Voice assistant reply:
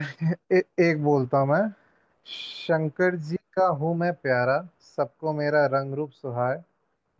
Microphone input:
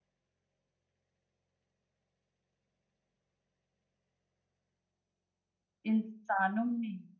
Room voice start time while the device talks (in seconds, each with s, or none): 5.8 s